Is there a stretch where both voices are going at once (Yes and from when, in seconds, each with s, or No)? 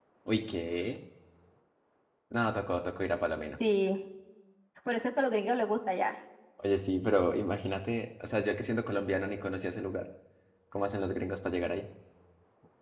No